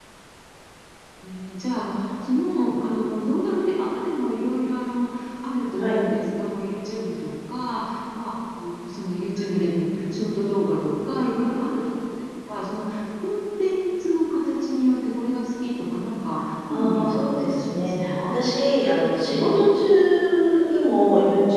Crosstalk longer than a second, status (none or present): present